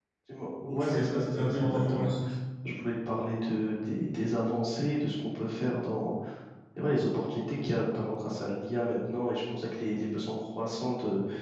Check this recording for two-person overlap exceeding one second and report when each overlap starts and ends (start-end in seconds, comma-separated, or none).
0.6-2.1